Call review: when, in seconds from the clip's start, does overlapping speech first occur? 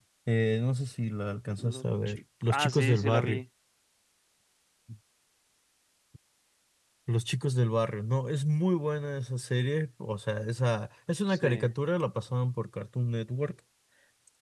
2 s

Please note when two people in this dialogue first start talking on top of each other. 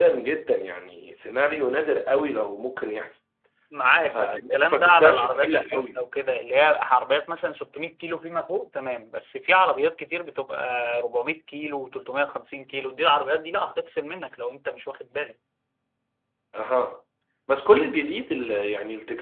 4 s

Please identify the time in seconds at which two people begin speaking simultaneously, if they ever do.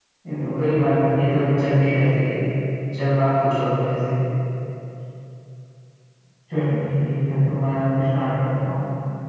1 s

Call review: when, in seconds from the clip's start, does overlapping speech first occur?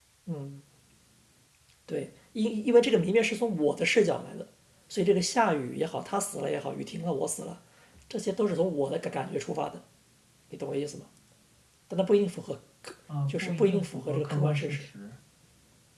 13 s

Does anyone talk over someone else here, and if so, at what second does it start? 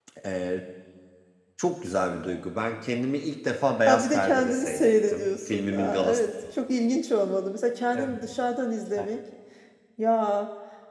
4 s

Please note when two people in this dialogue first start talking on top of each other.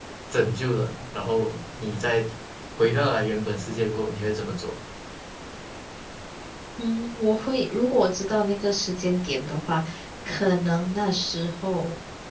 none

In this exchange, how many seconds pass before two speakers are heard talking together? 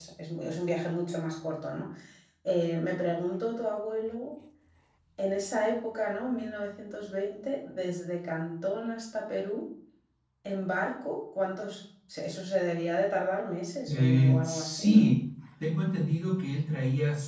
14 s

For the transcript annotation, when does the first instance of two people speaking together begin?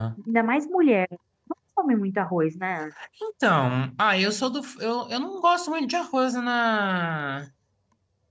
none

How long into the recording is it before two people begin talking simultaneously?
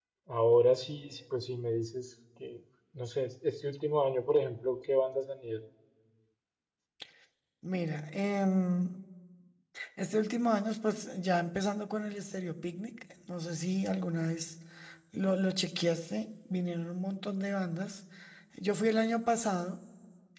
none

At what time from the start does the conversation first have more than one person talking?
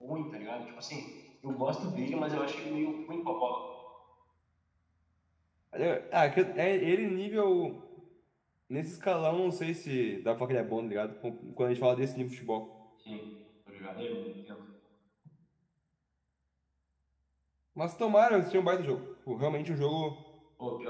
none

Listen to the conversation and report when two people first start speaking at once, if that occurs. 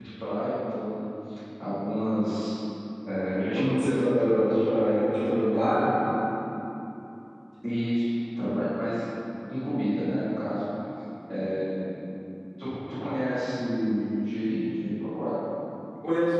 4 s

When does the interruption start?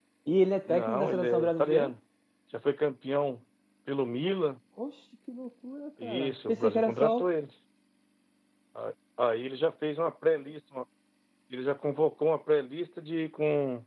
1 s

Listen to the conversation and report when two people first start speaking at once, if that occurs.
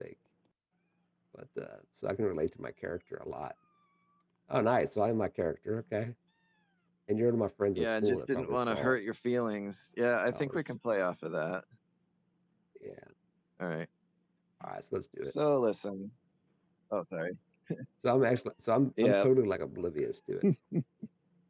8 s

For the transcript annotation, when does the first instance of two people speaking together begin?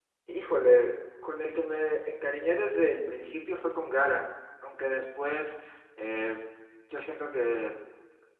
none

